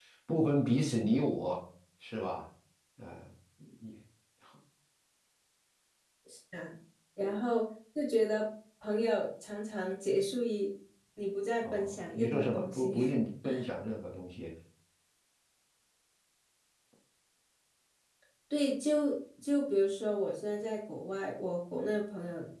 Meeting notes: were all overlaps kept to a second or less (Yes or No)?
No